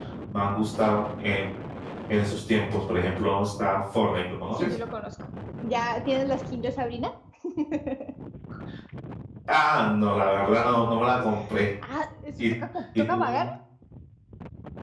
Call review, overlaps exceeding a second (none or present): none